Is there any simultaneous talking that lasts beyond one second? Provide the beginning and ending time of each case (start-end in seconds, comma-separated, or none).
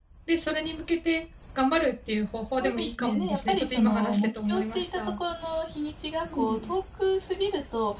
2.6-5.0